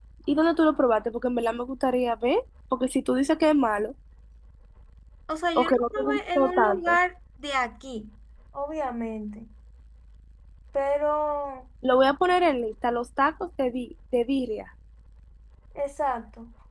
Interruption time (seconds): 5.6 s

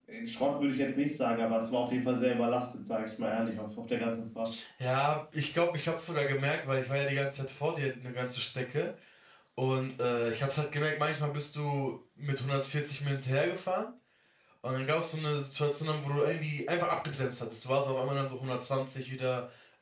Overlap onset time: none

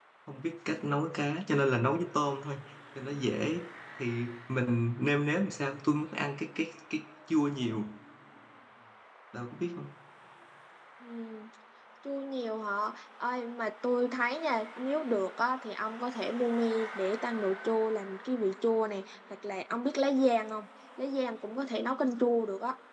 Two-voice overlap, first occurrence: none

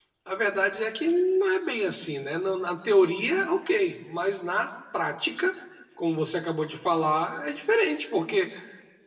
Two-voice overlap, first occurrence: none

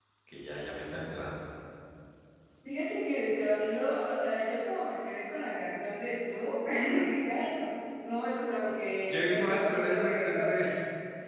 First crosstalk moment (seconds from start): 9.1 s

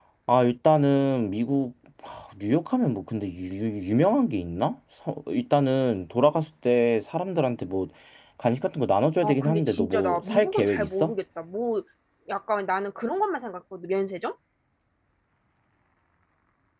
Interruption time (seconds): 9.2 s

